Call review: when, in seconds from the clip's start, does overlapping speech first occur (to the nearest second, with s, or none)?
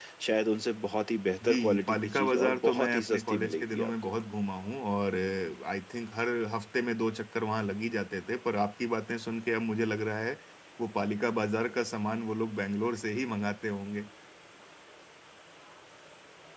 1 s